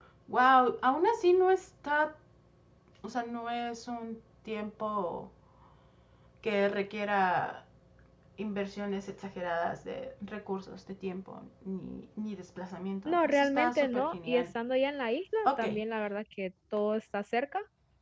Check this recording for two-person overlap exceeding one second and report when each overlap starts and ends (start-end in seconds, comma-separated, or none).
13.1-14.5